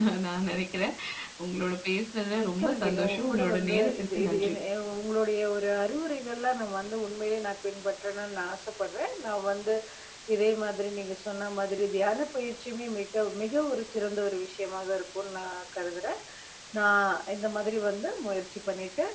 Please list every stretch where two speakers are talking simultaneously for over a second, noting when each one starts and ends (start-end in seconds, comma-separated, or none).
2.4-4.5